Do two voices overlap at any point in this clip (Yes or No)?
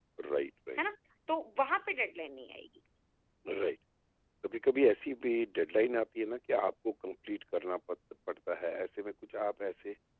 No